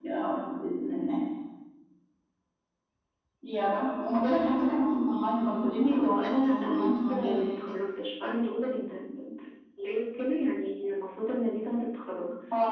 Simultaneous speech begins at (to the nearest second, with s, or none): 6 s